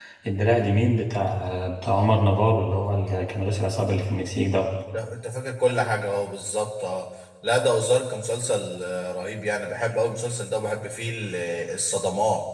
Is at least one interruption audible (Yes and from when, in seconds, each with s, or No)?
No